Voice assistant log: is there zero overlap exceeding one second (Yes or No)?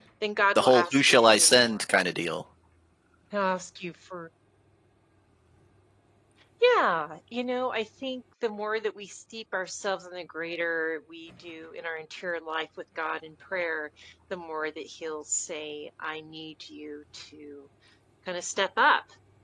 No